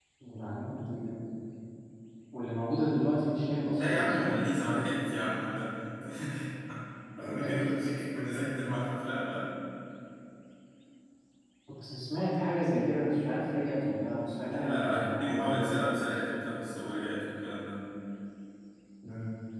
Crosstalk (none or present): present